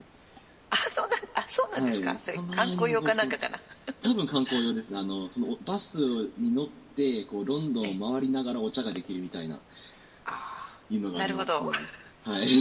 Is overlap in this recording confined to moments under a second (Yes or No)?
No